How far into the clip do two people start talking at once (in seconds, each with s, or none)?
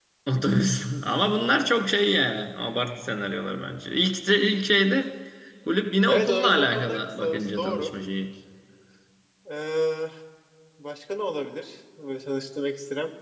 6.1 s